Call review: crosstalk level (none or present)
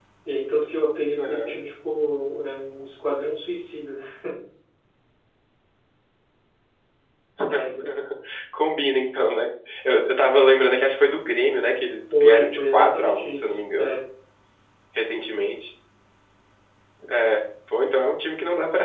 present